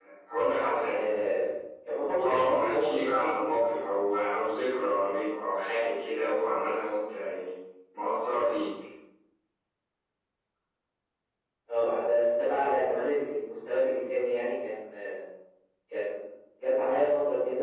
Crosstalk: present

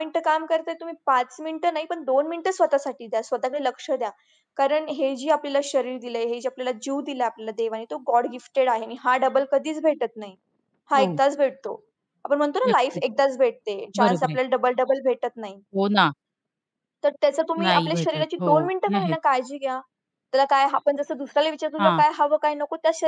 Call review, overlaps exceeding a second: present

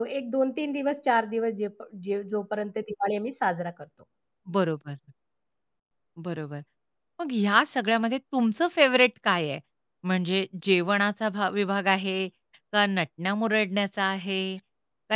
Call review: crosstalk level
none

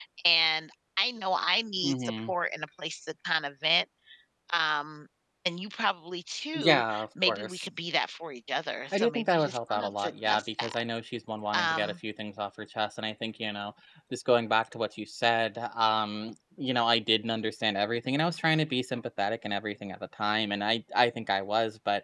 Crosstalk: present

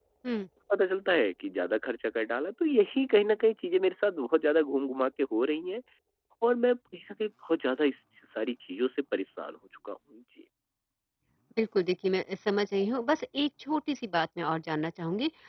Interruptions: none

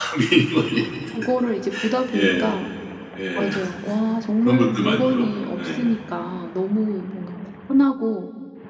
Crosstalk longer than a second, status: present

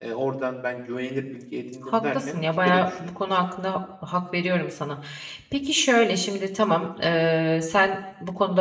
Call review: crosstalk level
present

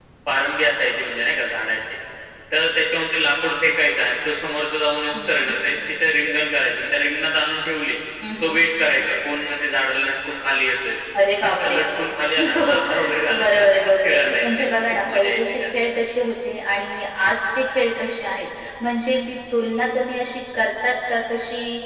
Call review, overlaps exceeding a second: present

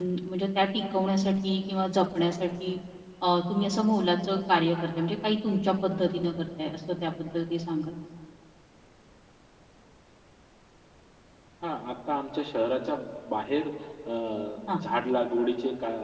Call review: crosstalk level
none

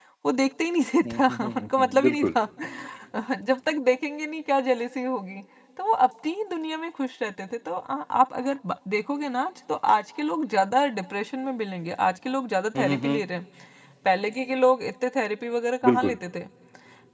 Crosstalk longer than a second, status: present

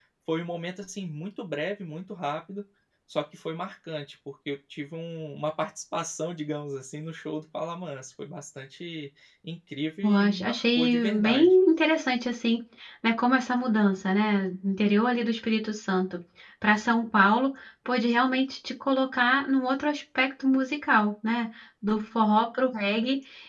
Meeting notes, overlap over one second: present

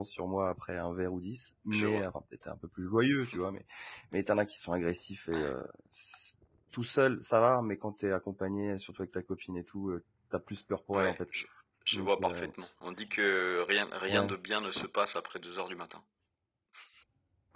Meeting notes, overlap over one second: none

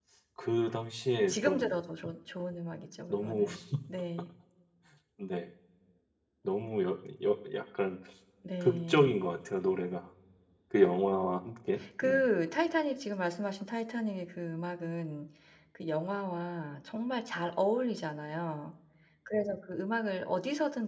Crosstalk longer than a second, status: none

